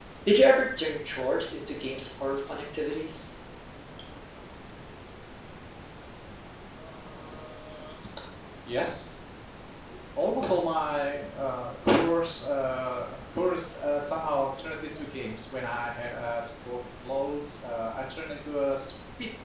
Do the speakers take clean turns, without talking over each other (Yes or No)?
Yes